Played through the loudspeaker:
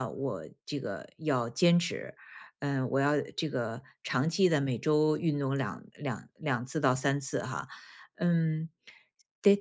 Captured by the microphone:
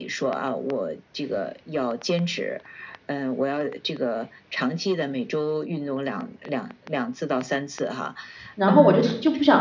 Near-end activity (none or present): present